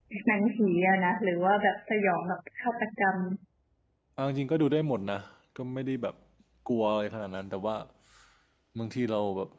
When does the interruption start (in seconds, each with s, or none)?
none